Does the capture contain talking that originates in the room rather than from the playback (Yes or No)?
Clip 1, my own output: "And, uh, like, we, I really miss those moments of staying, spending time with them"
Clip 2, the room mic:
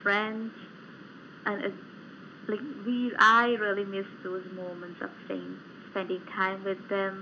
No